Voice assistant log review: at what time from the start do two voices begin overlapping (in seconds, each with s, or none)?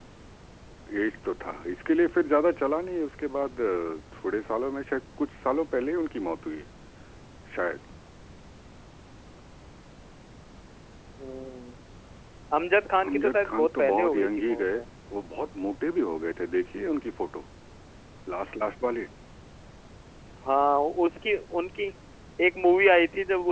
13.1 s